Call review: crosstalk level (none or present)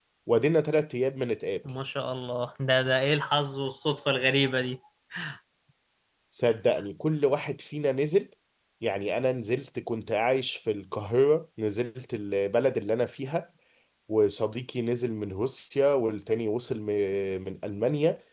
none